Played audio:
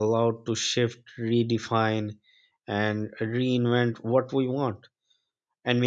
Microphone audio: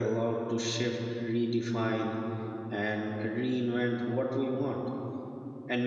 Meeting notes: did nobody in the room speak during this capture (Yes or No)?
Yes